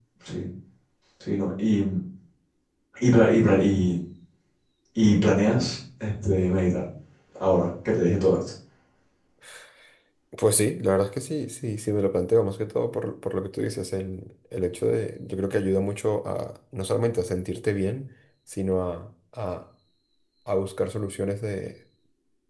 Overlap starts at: none

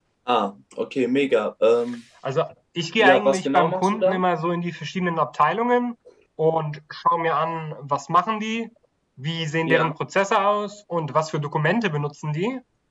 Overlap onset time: 3 s

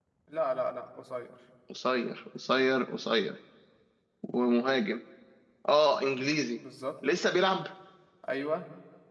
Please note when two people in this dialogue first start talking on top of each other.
none

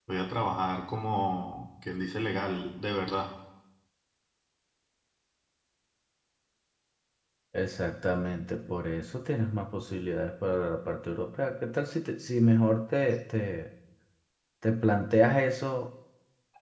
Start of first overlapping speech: none

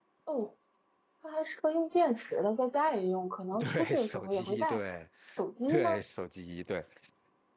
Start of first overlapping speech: 4 s

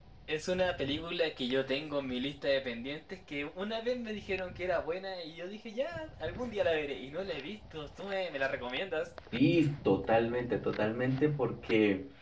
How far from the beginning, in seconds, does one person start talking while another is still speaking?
none

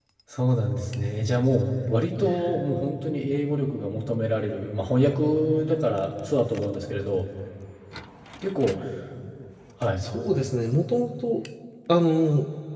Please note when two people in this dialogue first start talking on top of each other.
none

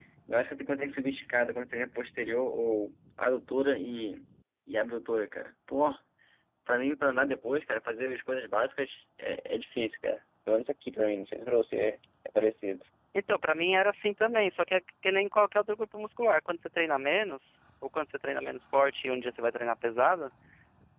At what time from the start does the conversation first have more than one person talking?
none

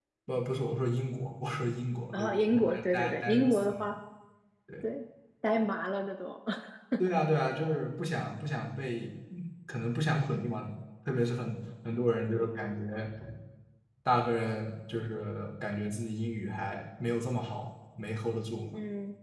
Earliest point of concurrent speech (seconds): 2 s

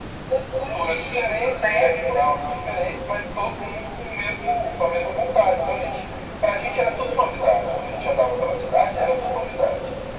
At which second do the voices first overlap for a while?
1 s

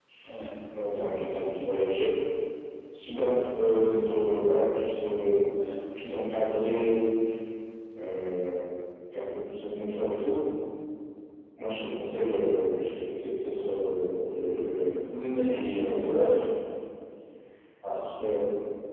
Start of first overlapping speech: 15 s

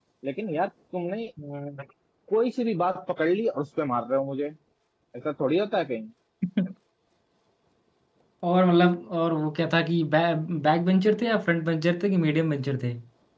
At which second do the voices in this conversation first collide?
none

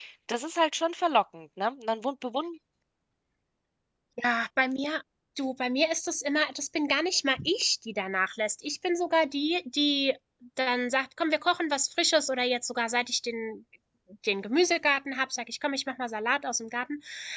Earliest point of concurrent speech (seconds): none

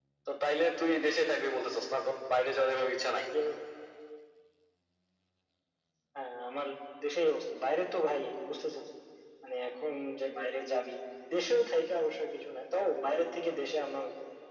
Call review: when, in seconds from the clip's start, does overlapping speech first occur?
none

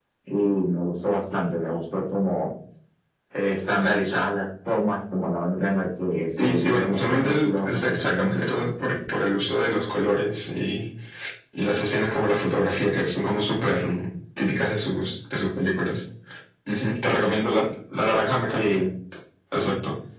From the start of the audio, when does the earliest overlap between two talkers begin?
6 s

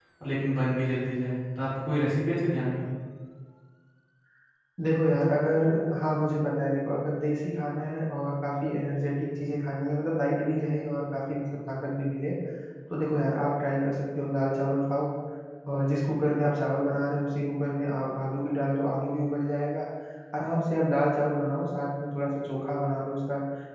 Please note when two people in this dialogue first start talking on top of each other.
none

